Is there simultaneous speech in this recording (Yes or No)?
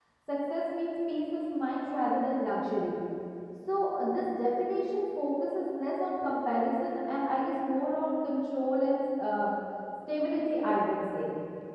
No